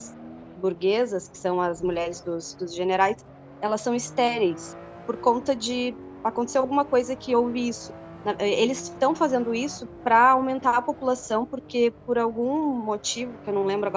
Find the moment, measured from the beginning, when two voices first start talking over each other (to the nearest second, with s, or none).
none